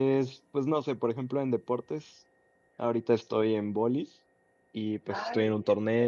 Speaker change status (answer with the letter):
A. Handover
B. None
B